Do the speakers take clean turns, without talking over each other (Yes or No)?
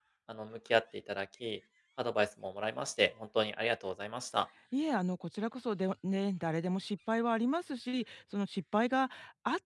Yes